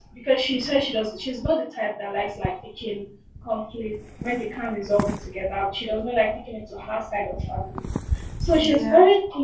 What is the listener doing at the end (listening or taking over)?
listening